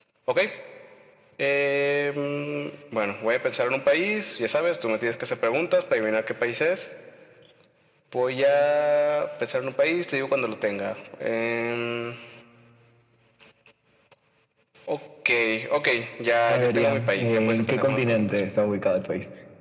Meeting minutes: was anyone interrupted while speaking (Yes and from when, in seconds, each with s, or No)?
Yes, from 16.5 s